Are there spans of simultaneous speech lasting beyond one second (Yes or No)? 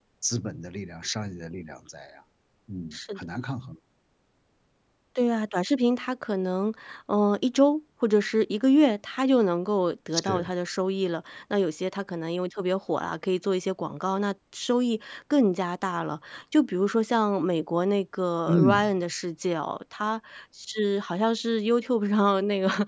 No